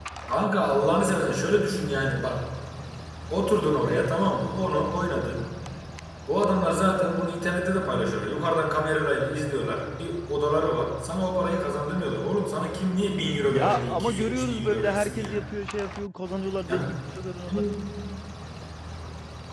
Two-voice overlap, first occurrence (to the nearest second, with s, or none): 13 s